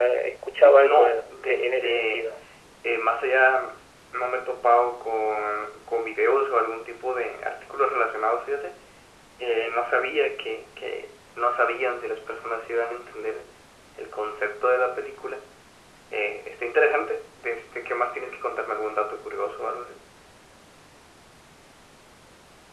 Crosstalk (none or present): present